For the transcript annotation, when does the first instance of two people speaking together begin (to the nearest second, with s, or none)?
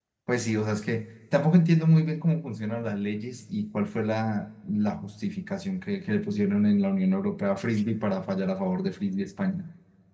none